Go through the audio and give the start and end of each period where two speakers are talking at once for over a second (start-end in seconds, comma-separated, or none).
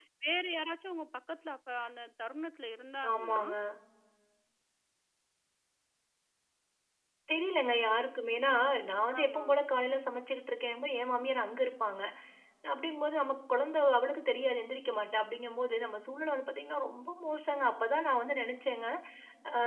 none